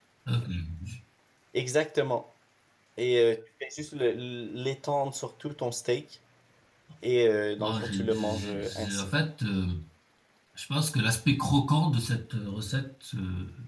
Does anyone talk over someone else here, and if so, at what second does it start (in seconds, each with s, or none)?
7.6 s